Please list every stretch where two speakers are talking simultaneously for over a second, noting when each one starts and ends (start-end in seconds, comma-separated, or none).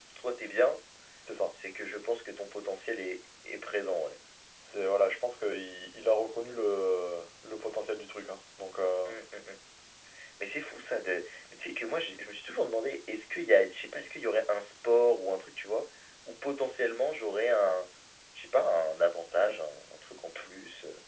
none